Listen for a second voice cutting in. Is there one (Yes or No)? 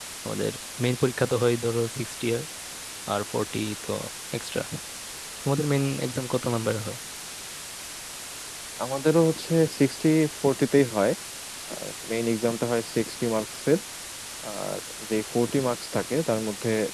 No